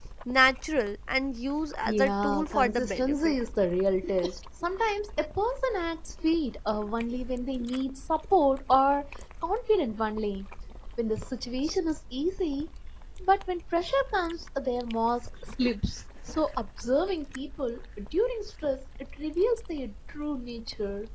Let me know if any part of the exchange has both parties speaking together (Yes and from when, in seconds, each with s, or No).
Yes, from 1.9 s